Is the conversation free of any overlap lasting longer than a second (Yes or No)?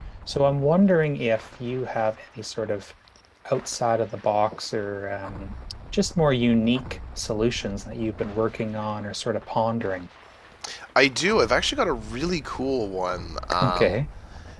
Yes